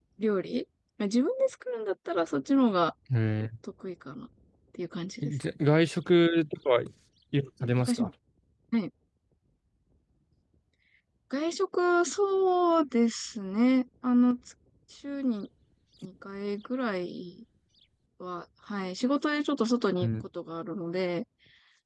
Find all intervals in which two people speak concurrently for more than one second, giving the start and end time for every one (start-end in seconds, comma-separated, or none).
none